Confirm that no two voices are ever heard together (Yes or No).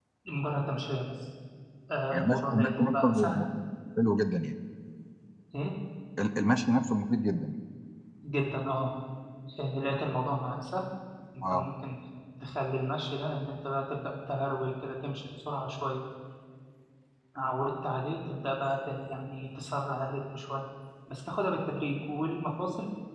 No